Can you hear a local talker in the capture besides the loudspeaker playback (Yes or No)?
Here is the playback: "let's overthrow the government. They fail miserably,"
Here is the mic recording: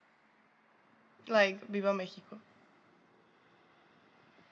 Yes